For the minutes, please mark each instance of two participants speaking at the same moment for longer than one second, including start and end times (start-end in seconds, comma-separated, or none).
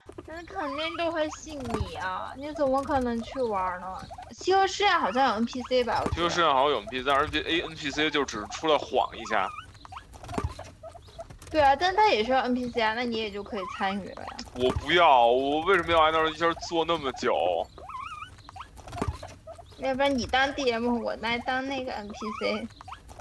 none